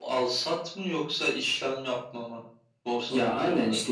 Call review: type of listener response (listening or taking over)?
taking over